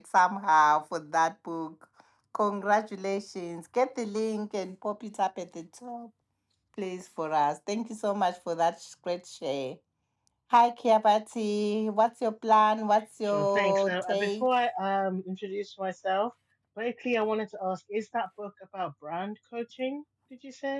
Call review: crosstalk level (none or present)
present